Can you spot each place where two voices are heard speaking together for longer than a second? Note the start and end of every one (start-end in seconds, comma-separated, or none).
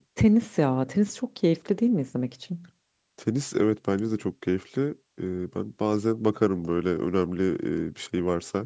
none